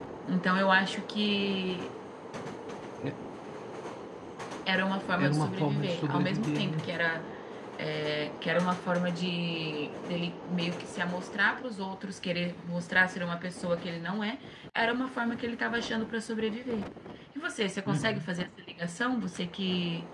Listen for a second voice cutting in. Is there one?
Yes, from 5.2 s

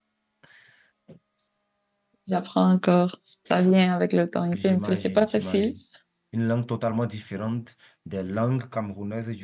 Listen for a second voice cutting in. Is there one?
Yes, from 4.4 s

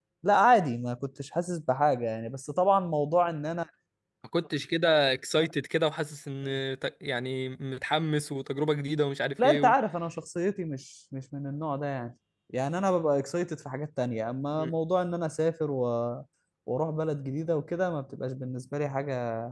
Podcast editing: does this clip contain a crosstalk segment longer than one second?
No

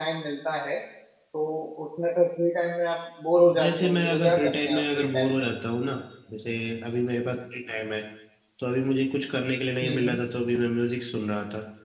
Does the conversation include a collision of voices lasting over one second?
Yes, from 3.6 s

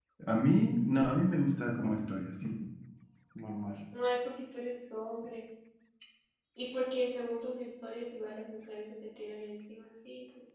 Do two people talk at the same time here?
No

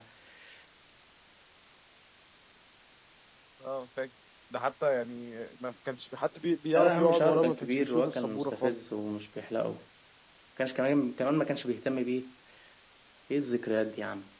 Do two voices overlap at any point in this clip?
Yes, from 6.8 s

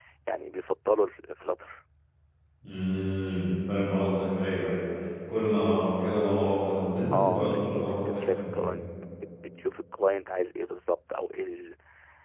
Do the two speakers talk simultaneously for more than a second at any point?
Yes, from 7.1 s

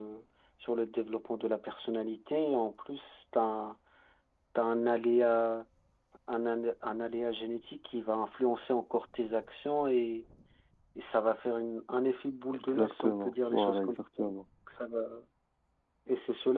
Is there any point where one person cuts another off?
Yes, from 12.5 s

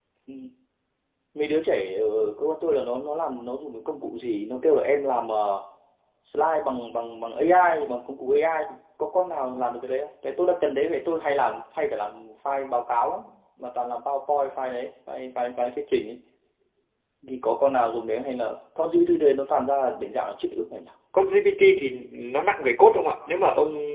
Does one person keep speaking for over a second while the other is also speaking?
No

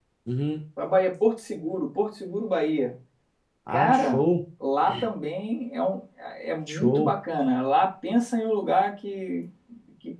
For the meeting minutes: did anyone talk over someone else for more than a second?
No

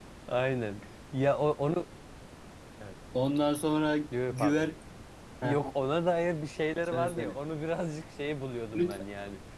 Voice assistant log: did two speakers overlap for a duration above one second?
No

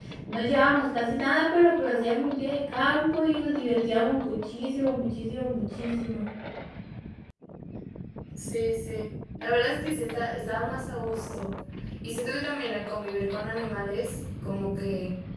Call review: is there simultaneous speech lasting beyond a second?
No

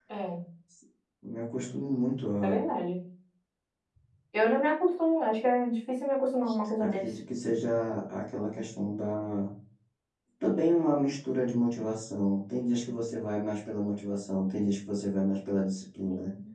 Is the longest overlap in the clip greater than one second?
No

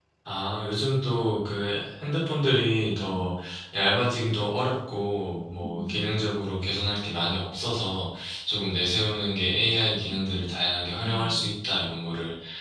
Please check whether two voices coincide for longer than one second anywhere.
No

